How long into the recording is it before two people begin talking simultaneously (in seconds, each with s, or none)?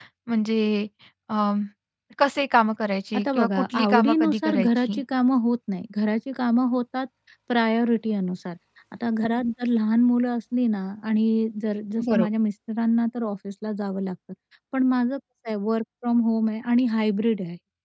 3.1 s